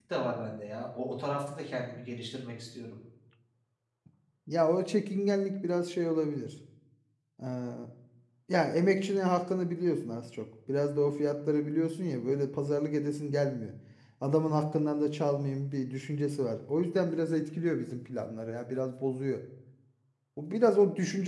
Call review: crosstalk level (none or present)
none